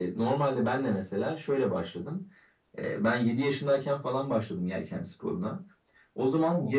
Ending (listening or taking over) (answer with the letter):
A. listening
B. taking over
A